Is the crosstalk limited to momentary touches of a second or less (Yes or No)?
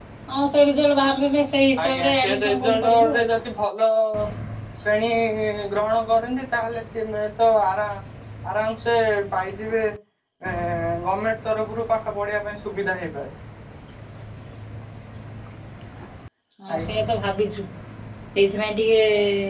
No